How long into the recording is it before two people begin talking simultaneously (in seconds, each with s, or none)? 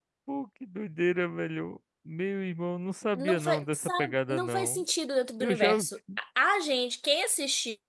3.2 s